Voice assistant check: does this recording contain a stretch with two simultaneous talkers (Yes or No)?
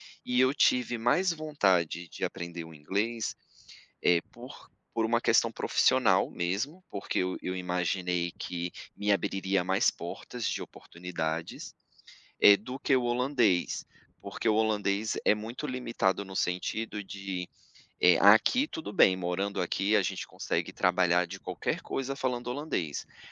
No